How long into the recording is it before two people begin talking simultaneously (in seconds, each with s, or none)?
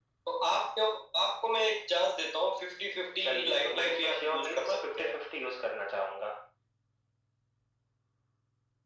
3.2 s